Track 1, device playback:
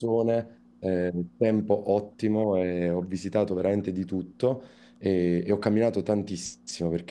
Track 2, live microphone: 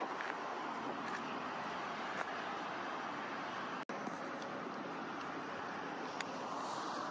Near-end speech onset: none

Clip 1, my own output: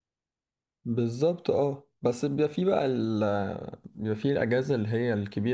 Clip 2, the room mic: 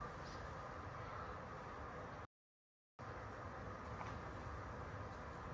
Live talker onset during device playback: none

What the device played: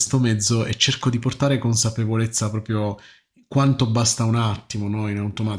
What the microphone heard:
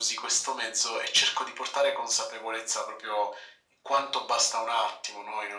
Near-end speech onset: none

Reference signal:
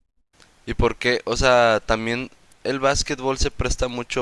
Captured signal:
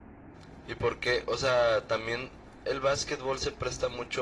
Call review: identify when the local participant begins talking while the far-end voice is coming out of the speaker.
none

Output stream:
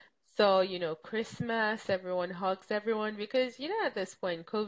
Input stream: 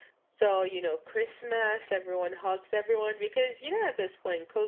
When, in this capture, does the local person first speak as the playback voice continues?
none

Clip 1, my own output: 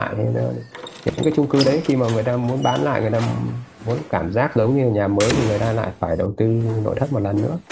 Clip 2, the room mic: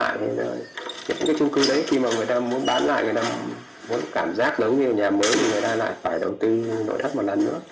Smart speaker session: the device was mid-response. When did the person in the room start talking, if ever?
none

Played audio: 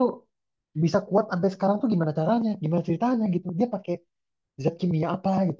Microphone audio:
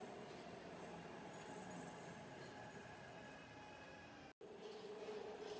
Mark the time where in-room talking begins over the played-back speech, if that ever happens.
none

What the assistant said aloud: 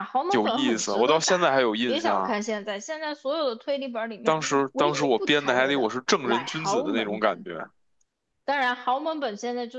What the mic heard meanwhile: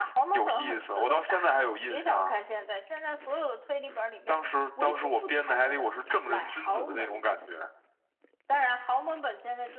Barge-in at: none

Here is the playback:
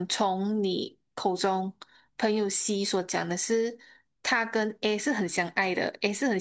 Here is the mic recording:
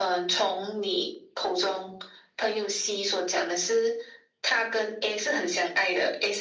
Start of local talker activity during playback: none

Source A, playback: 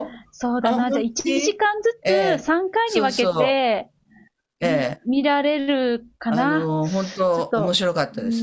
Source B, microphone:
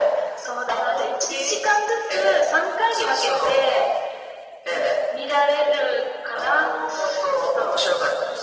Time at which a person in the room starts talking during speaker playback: none

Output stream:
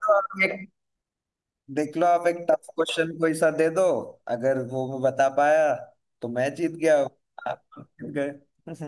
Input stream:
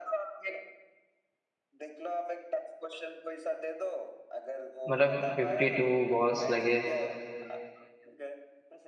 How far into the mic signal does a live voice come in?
5 s

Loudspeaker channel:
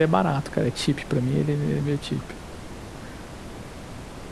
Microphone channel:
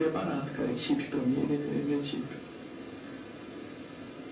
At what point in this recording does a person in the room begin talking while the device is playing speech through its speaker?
none

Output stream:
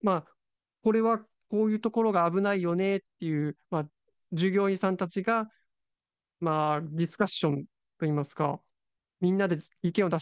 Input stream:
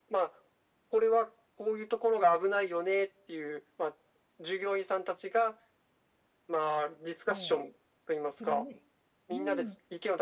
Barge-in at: 7 s

